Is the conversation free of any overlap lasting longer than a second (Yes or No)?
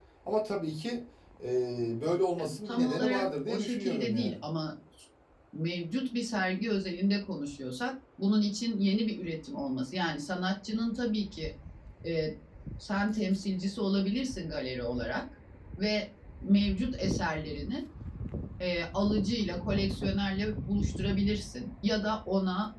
No